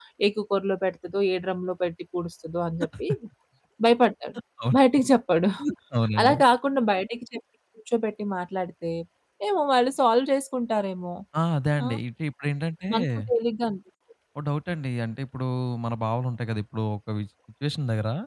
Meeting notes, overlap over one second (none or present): none